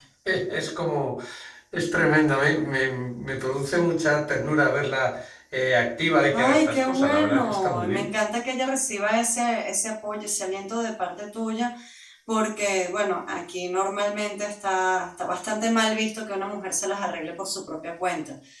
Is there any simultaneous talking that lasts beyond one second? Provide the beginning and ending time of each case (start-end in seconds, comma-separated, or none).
6.3-8.1